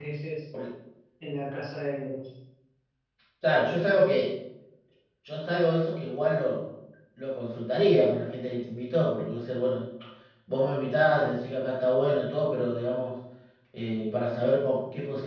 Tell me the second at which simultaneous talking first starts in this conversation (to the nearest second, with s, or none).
none